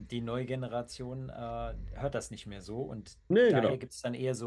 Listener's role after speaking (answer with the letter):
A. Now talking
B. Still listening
B